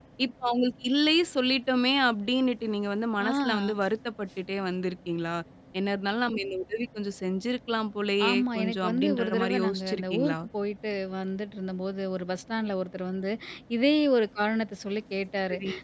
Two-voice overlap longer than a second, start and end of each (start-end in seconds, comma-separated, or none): 8.3-10.4